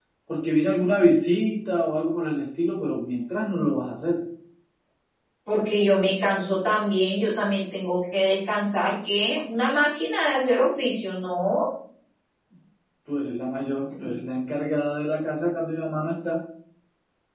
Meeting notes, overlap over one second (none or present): none